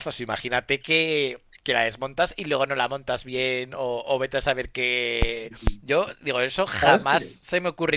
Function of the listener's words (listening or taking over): listening